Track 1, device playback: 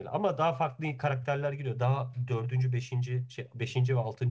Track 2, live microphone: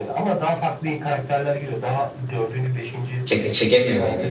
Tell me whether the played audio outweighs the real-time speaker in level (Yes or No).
No